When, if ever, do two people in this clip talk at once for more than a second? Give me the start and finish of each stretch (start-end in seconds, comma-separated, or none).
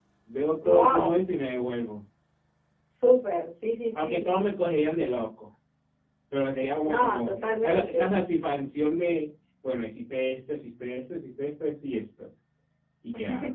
6.8-8.1